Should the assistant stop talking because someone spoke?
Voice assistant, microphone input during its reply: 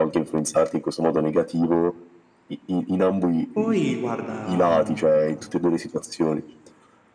Yes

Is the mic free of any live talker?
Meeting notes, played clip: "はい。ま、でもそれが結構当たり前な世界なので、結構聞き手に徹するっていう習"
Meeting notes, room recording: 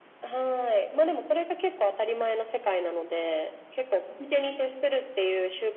Yes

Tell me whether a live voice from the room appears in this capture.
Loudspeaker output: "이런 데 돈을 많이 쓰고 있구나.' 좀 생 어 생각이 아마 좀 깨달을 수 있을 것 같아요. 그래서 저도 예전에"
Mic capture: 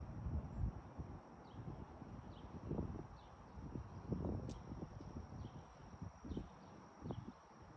No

